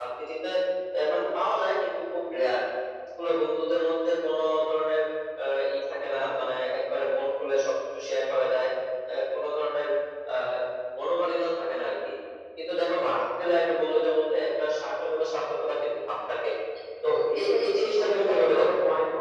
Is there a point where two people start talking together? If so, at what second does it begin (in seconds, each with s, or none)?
17.4 s